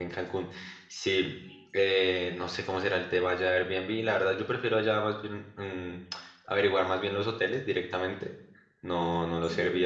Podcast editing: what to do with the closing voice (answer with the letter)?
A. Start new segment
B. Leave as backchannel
B